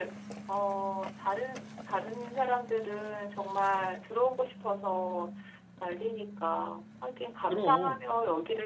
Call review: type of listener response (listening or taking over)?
listening